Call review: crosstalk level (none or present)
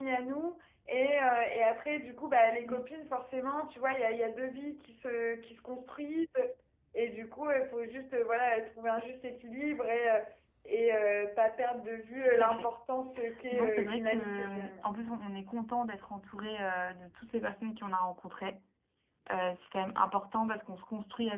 present